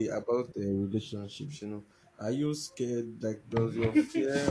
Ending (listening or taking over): listening